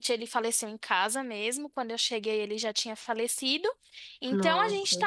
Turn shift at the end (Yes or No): No